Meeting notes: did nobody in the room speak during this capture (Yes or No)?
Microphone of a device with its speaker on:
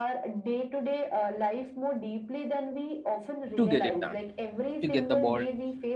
No